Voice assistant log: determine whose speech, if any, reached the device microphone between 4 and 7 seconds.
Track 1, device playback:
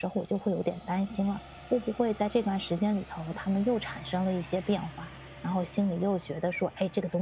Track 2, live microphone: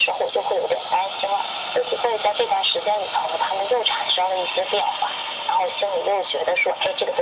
echo only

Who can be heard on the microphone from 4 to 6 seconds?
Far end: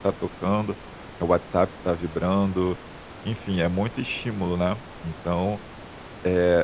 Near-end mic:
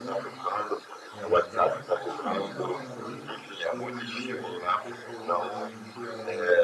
both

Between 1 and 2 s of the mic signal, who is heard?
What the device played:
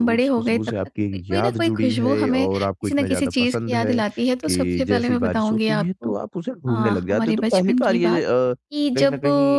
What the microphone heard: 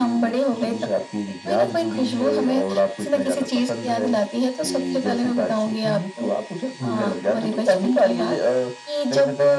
echo only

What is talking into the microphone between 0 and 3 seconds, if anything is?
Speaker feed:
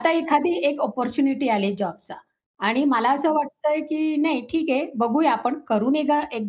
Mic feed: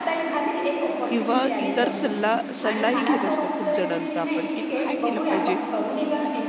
both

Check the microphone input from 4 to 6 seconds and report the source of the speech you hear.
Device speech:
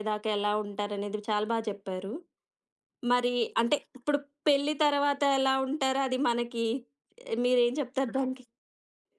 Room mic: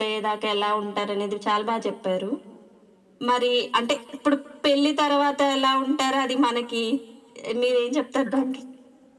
echo only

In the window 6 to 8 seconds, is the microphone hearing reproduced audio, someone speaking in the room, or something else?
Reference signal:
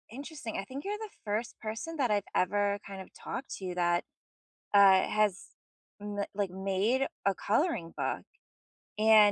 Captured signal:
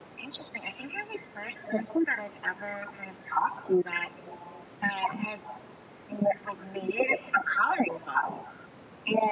echo only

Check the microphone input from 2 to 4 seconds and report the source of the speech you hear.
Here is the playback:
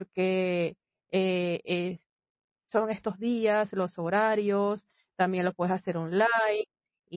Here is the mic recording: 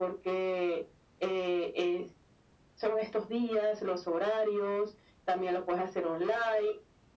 echo only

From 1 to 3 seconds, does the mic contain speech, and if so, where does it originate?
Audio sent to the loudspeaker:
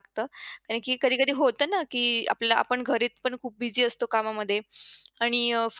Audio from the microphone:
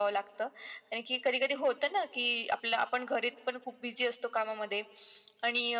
echo only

